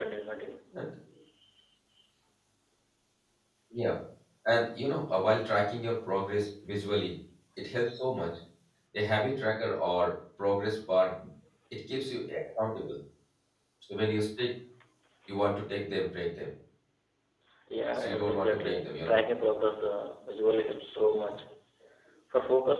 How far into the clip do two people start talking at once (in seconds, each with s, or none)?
17.9 s